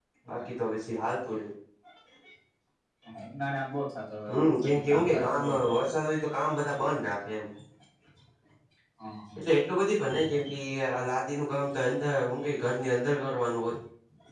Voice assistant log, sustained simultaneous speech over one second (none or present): present